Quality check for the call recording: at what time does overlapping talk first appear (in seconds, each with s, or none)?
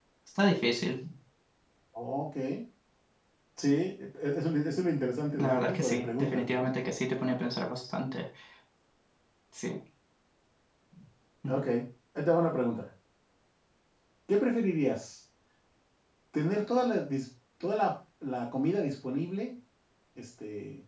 5.4 s